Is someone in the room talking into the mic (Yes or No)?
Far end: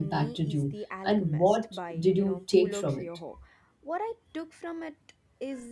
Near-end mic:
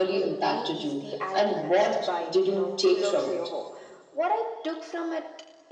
No